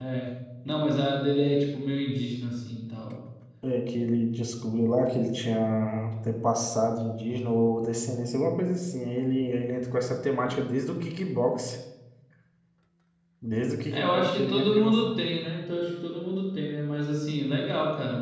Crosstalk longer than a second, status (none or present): present